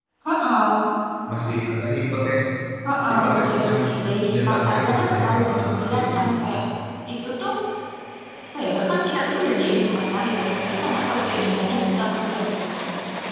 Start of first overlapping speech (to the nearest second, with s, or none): 3 s